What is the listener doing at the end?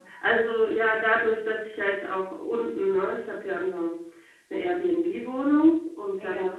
listening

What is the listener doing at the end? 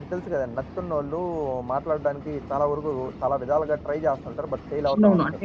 taking over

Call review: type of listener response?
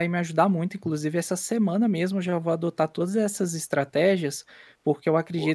listening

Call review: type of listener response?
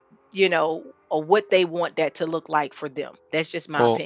taking over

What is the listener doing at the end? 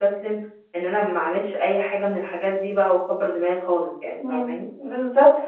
taking over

